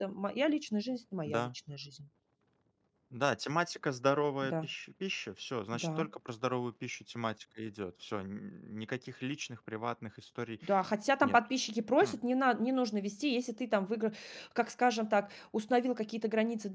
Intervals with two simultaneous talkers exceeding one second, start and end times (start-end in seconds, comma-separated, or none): none